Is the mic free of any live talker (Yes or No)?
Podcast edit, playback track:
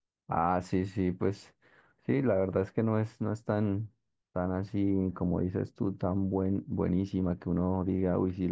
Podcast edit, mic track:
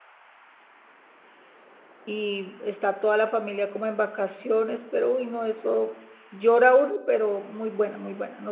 No